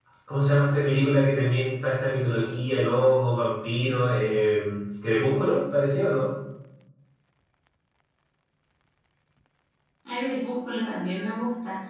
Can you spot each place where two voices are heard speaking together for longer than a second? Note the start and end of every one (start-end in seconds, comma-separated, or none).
none